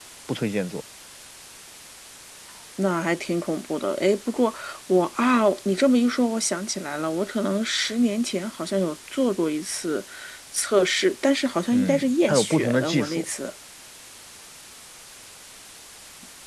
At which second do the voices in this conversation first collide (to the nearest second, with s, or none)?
12 s